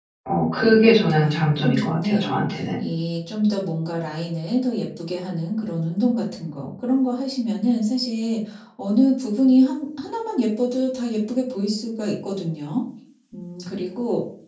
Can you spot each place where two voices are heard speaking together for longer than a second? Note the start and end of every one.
1.2-2.8

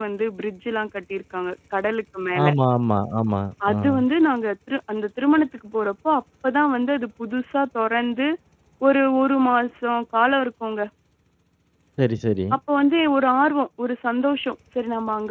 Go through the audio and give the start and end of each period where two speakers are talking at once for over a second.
none

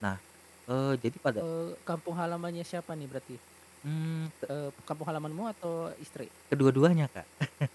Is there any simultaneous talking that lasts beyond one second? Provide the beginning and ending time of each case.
none

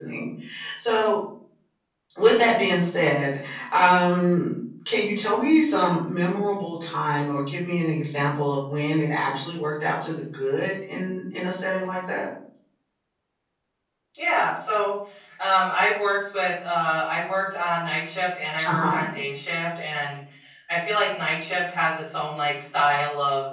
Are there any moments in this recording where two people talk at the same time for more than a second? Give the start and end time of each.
none

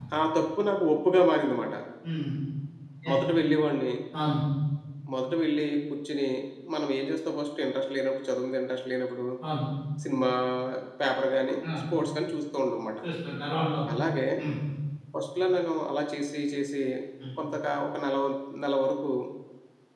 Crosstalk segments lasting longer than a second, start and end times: none

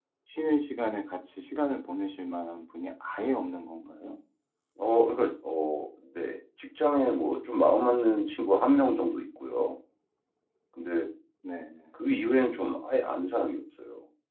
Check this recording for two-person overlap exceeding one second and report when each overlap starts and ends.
none

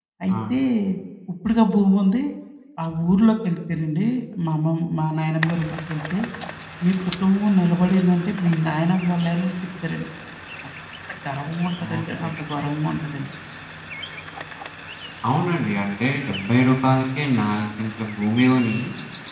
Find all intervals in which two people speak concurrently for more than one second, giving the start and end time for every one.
none

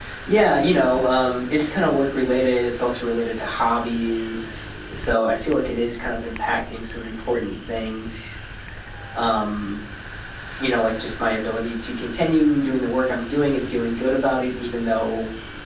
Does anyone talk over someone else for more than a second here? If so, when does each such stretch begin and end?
none

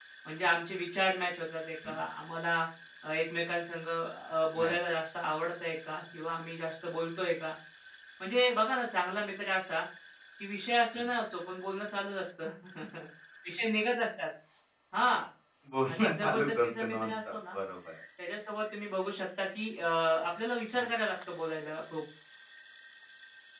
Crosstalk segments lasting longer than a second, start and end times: 15.9-17.5

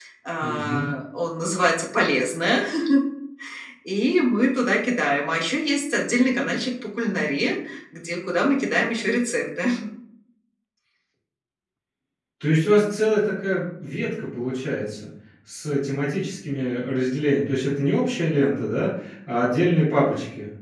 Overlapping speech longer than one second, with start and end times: none

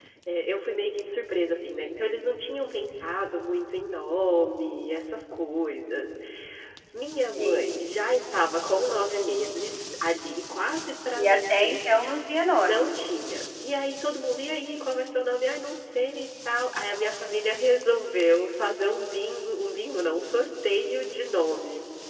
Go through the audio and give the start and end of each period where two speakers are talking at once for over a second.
none

